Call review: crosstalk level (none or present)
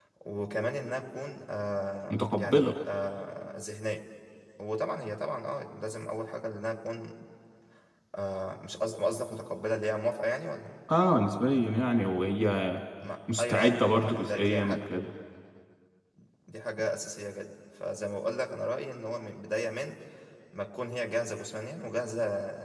present